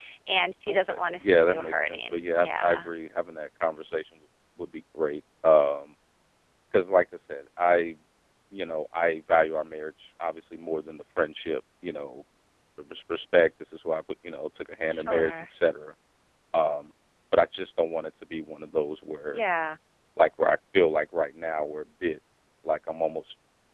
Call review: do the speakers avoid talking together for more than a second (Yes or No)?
No